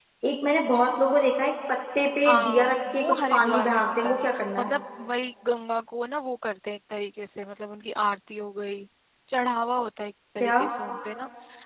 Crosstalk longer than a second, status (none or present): present